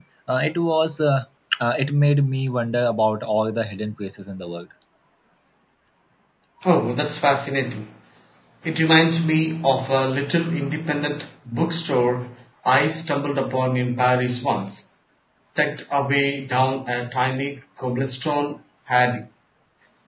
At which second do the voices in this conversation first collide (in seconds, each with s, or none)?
none